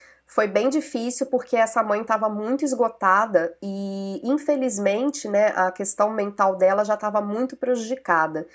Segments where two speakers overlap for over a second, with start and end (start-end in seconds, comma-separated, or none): none